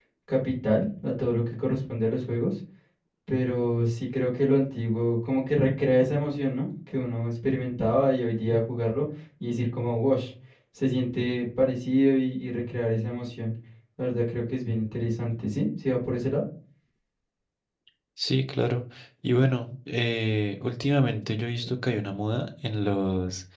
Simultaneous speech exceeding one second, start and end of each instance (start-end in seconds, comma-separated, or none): none